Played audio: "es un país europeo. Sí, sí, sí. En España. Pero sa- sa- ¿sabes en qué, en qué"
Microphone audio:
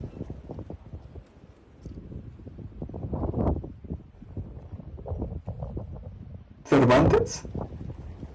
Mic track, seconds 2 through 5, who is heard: neither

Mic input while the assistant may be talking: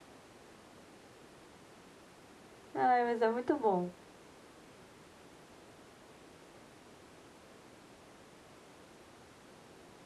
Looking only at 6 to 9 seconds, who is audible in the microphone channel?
neither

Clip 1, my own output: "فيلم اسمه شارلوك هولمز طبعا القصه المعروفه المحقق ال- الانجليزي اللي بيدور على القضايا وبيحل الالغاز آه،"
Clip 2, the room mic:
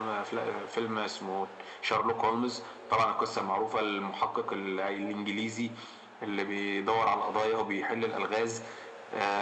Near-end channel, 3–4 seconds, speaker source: echo only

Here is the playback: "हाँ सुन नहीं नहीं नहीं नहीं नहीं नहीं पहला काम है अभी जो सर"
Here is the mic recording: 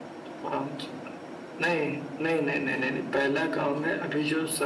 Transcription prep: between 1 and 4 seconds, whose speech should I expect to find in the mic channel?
echo only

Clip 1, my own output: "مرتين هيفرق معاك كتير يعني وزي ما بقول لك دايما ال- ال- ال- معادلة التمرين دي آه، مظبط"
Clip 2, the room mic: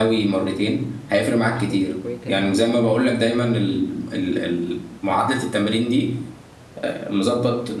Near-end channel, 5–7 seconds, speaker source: echo only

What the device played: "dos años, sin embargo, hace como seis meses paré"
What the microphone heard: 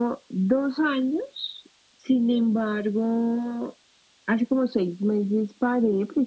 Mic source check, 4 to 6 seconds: echo only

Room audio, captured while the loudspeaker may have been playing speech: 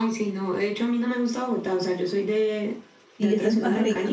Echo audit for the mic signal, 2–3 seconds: echo only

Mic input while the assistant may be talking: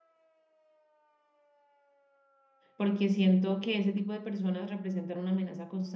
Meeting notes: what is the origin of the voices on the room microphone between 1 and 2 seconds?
neither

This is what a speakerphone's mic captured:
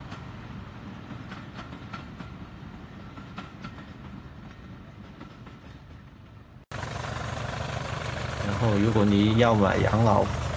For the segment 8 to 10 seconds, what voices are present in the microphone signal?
user only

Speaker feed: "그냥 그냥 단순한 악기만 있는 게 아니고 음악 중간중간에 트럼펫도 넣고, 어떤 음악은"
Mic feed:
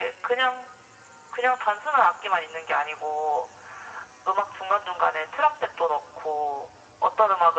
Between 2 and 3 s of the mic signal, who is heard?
echo only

